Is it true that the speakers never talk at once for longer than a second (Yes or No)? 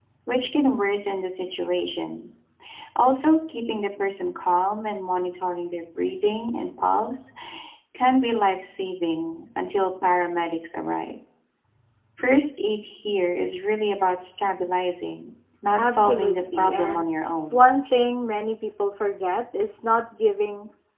No